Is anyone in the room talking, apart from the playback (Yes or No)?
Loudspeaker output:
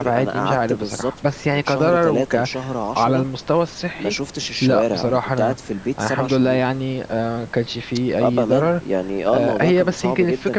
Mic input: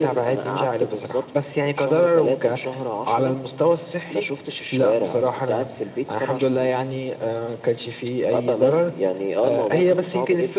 No